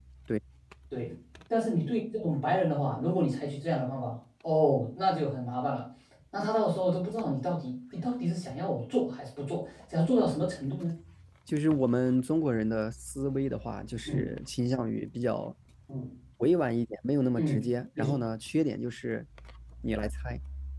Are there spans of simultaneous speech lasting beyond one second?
No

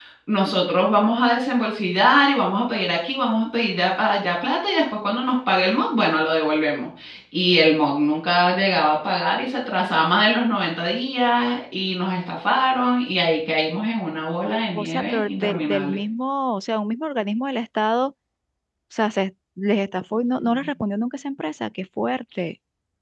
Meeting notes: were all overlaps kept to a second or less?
No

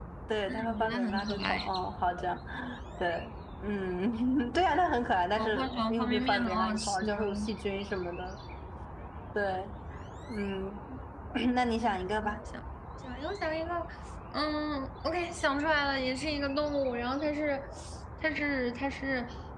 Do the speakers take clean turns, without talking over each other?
No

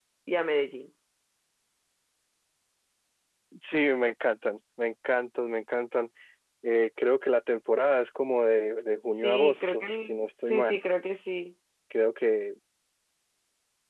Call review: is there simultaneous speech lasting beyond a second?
Yes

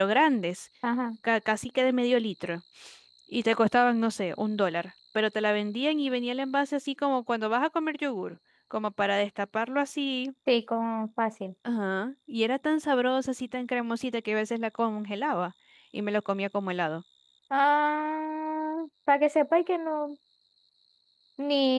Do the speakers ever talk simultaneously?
No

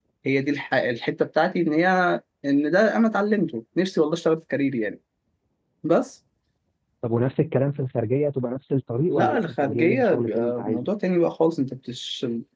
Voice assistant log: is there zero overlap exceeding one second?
No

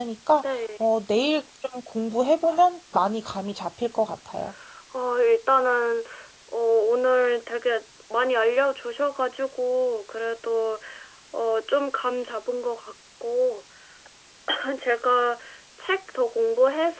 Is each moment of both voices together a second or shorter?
Yes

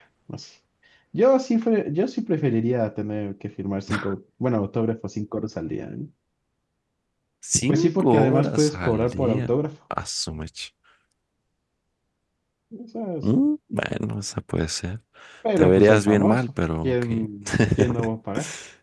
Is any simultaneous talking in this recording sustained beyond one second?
Yes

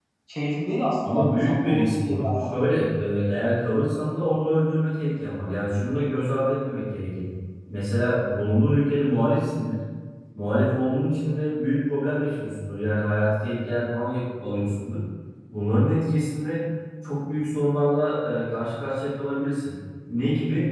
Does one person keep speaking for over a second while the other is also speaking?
Yes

